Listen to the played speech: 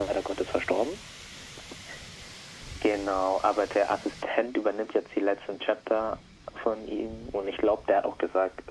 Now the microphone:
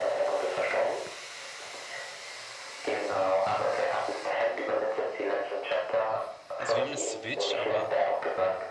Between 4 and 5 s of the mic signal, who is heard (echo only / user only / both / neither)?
echo only